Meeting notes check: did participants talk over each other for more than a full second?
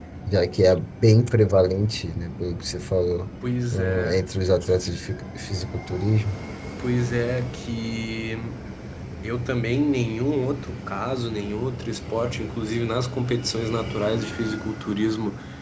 No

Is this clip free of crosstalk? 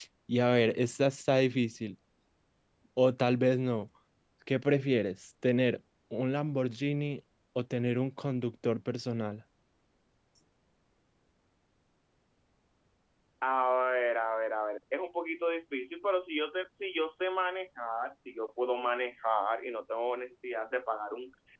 Yes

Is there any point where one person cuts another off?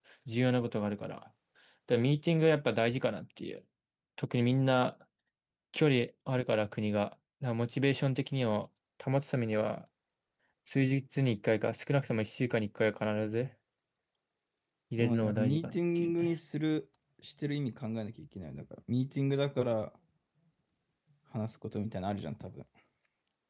Yes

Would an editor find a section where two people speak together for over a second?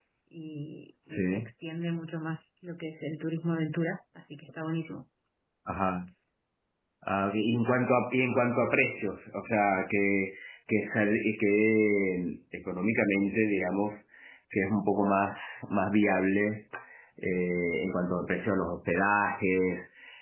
No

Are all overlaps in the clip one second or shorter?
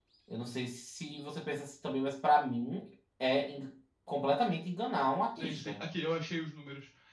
Yes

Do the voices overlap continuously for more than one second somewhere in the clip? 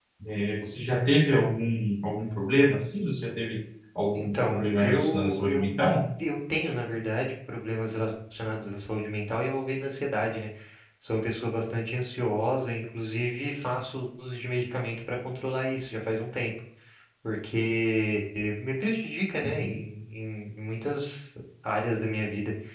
Yes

